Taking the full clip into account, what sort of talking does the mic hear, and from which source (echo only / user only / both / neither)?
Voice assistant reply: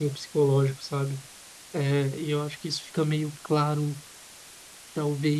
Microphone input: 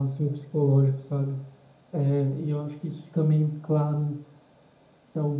echo only